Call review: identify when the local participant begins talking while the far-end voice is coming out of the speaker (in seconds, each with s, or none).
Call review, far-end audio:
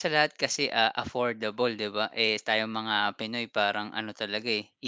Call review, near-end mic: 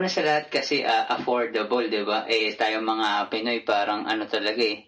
none